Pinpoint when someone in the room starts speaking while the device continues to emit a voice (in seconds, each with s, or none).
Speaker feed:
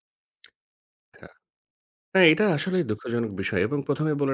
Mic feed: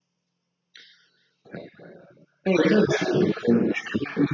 none